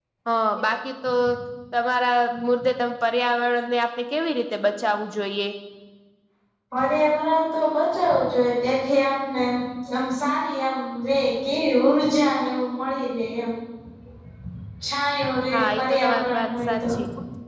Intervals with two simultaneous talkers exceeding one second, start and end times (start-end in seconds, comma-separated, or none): 15.5-17.0